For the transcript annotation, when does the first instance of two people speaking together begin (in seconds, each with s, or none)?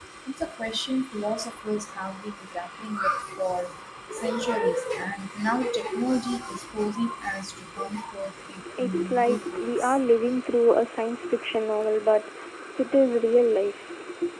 8.8 s